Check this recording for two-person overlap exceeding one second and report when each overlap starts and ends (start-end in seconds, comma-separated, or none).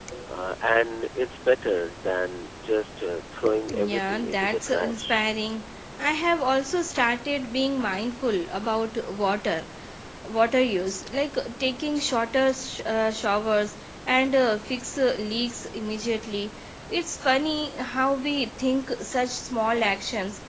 3.7-5.3